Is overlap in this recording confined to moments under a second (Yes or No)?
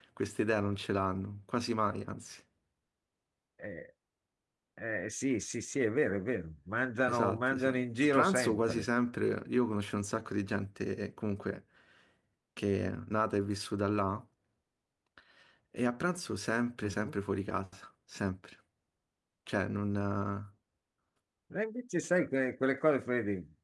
No